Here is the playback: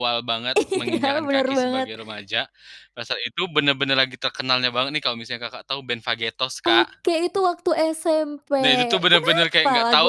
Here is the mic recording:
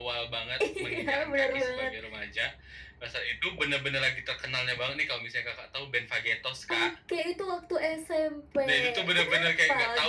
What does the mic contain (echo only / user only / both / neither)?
echo only